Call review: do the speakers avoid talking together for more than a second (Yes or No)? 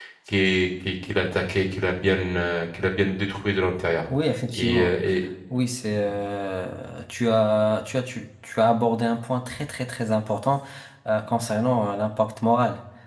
Yes